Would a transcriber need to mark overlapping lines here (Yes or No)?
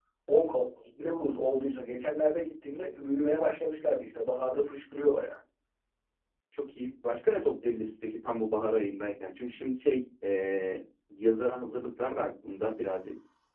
No